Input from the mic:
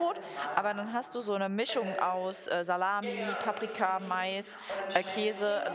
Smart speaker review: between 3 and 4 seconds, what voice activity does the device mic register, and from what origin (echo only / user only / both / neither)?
both